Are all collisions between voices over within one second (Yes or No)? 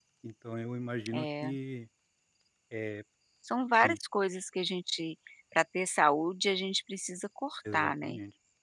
Yes